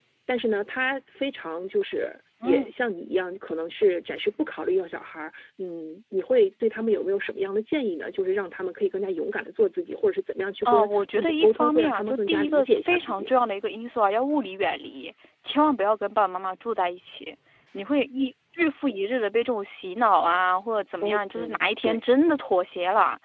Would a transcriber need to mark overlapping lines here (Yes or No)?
Yes